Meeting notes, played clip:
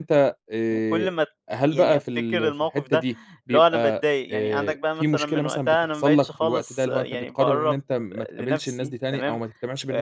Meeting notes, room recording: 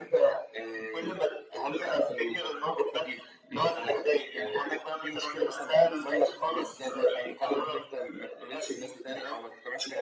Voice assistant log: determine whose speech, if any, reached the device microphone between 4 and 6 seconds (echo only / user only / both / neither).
echo only